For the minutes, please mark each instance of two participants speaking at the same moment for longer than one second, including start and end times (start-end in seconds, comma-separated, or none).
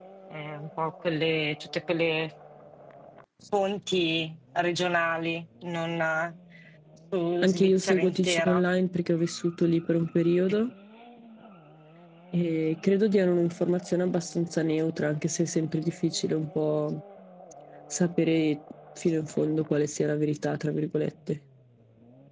7.4-8.7